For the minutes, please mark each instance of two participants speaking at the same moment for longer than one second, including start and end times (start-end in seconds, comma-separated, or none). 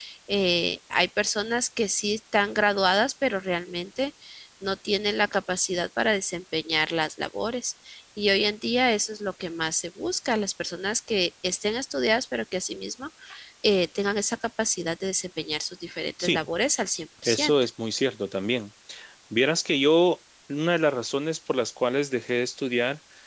none